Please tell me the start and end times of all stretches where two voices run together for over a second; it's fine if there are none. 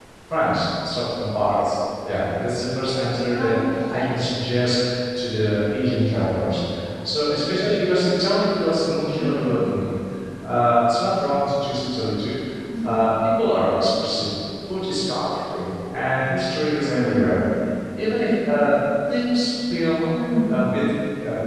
none

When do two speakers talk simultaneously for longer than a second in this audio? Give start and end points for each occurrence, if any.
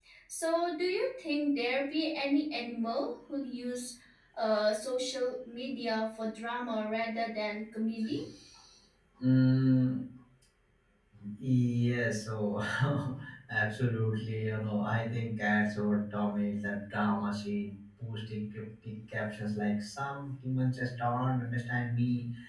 none

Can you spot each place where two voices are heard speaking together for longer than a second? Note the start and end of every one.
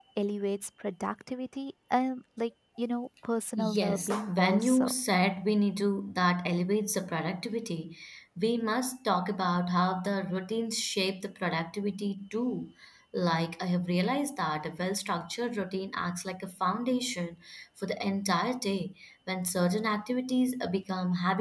3.6-4.9

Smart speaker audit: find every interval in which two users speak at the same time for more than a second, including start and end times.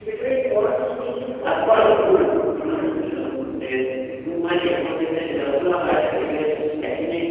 1.5-3.0

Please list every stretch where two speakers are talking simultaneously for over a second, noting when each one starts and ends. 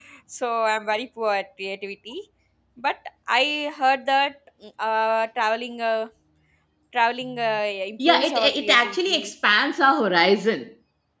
8.1-9.3

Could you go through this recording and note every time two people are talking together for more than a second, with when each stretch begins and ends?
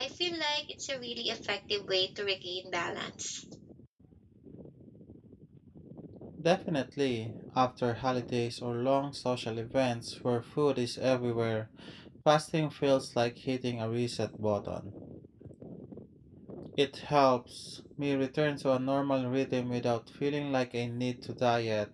none

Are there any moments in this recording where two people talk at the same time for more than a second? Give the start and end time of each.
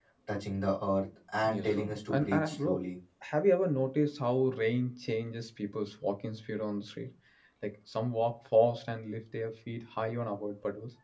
1.5-2.8

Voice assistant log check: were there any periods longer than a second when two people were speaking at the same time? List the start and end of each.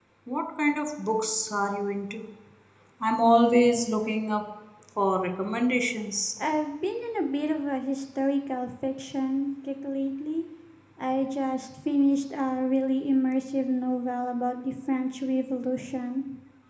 none

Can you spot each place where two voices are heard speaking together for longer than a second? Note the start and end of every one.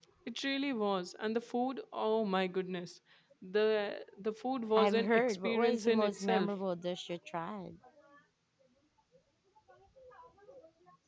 4.8-6.5

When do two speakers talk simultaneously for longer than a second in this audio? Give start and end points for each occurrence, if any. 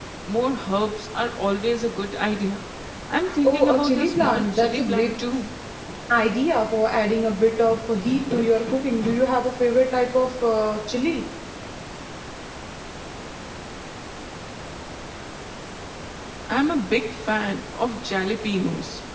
3.4-5.1

